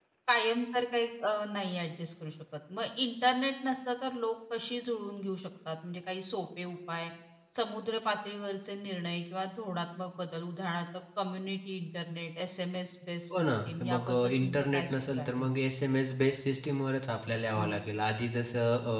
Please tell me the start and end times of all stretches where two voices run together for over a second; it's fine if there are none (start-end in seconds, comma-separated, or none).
13.3-15.5